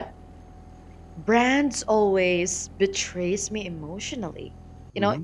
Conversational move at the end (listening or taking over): listening